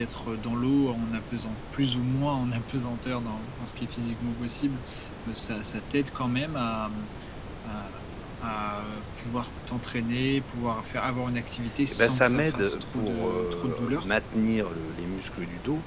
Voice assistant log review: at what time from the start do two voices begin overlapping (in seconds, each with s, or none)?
11.9 s